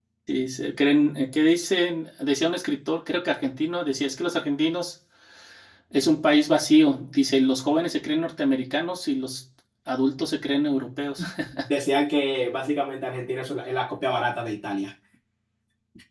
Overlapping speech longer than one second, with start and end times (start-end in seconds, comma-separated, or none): none